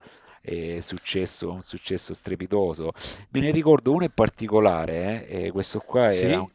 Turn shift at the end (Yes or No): No